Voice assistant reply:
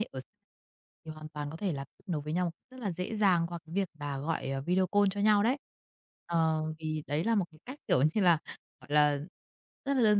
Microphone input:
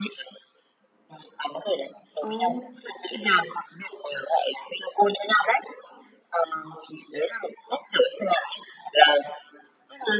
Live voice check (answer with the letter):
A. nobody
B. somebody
B